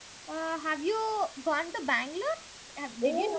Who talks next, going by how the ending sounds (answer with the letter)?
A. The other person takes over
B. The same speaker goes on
A